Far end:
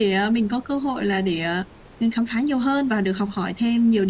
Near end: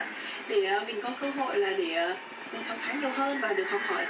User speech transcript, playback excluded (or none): none